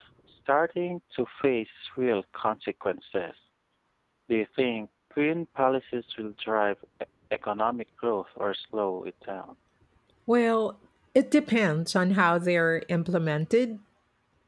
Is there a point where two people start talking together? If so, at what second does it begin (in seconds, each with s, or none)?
none